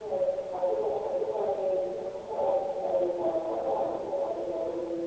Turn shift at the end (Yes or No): Yes